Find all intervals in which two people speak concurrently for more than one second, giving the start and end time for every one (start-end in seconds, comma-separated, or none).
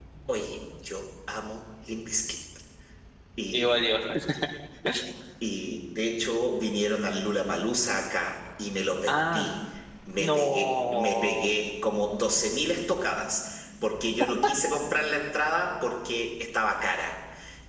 10.2-11.5